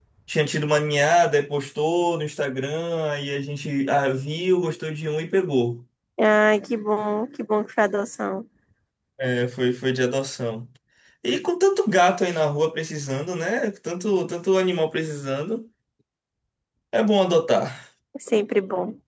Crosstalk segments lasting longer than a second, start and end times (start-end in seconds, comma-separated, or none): none